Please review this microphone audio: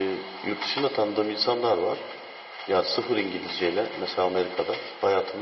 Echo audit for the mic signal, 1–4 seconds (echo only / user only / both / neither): echo only